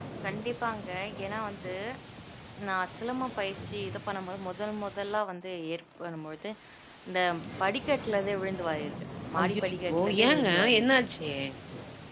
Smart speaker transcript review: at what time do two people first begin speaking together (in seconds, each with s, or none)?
9.4 s